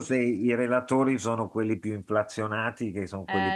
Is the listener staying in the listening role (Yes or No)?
Yes